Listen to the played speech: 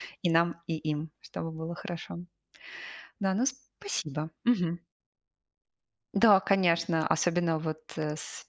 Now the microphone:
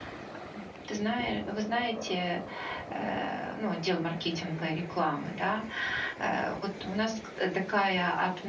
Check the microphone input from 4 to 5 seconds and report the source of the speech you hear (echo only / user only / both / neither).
user only